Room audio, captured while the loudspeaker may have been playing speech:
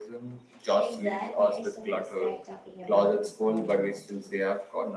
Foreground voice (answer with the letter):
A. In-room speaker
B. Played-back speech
B